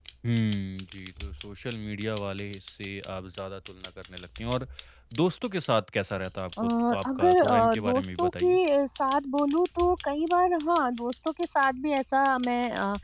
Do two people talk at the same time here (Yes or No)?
Yes